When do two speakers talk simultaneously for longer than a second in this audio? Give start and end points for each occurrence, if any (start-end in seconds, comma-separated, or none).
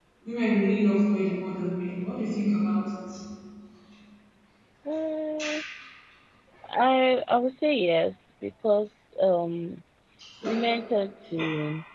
none